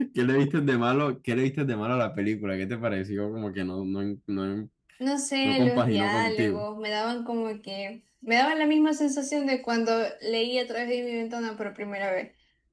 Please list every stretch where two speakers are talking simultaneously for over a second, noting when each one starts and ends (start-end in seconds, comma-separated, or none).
5.4-6.6